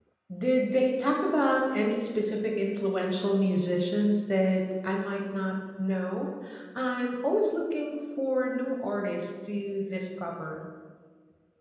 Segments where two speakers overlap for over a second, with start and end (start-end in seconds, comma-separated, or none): none